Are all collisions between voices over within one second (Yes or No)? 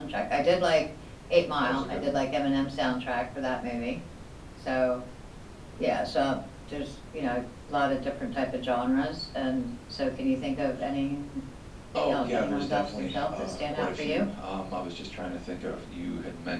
No